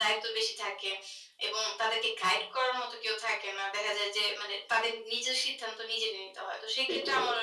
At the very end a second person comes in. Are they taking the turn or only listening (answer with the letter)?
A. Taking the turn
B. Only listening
B